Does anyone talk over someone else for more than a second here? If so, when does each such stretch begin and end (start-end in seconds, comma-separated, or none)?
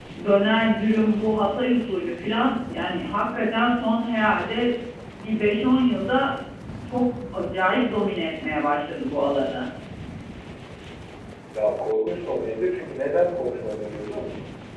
none